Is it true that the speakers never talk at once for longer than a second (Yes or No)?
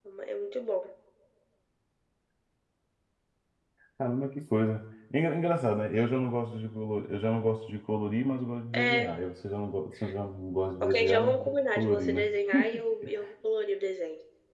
No